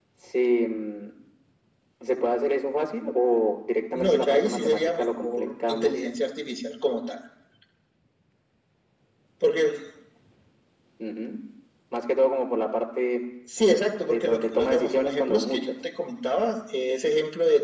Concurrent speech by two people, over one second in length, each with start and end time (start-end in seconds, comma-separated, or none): 4.0-5.9, 14.1-15.7